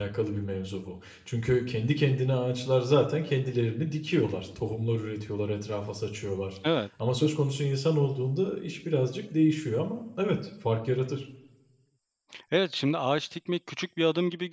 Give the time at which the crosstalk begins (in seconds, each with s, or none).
none